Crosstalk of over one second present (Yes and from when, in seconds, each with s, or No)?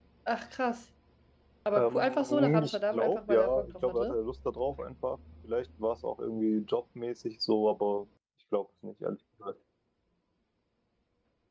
Yes, from 1.8 s